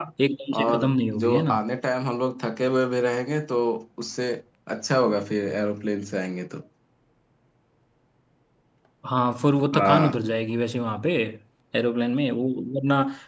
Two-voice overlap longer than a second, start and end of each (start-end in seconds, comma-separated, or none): none